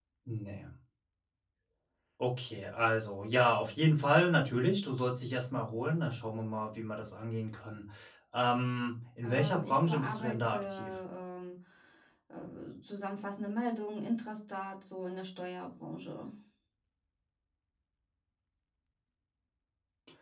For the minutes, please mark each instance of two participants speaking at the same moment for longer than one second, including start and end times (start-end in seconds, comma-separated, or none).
9.2-10.9